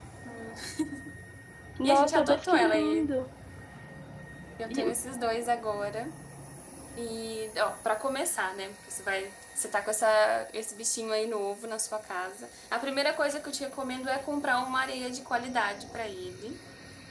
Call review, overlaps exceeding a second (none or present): present